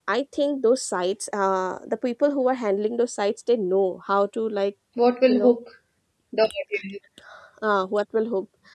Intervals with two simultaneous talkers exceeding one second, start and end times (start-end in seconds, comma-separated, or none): none